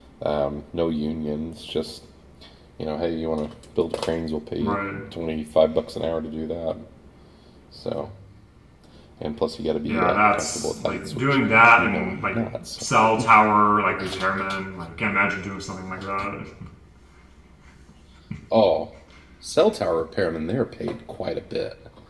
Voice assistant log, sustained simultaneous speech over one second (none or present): present